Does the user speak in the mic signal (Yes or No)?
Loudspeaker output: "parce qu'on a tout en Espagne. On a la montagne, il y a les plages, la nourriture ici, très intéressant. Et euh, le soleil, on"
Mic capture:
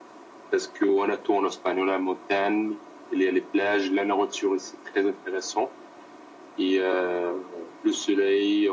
No